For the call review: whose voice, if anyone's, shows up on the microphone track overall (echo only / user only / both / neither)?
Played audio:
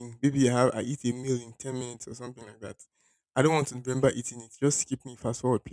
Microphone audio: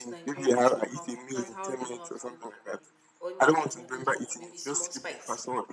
both